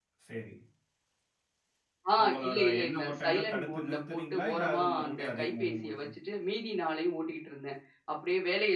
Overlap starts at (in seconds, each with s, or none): 2.5 s